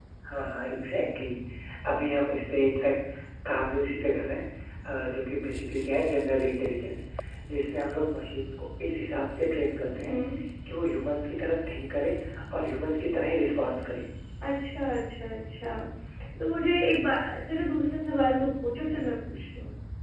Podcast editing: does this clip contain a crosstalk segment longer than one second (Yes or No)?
No